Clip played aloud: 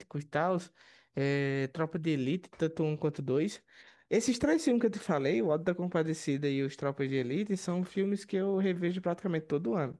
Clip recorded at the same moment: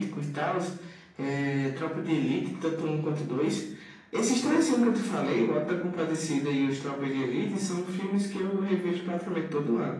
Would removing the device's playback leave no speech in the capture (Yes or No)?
Yes